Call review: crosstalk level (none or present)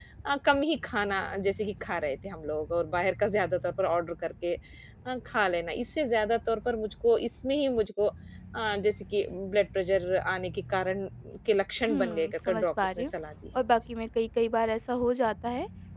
present